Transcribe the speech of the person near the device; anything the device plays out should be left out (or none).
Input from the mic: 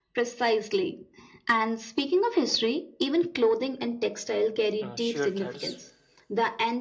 uh, shared threads?